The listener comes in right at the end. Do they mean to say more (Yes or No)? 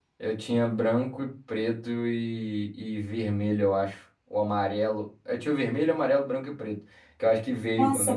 Yes